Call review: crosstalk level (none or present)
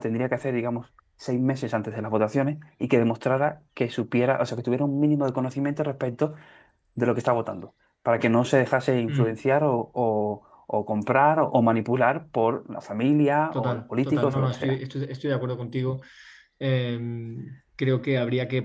present